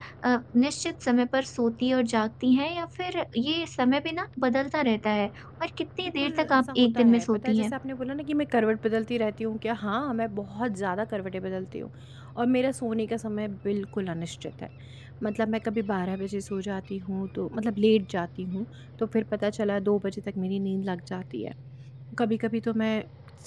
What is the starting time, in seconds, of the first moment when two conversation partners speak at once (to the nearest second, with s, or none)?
6 s